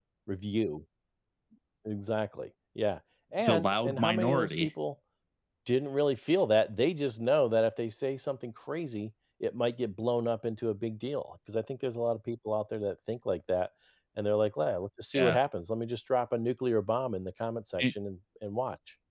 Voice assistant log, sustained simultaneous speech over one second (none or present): present